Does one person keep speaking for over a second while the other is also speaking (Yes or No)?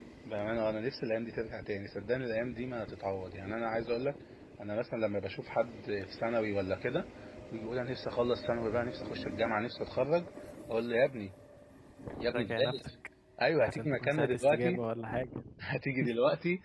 Yes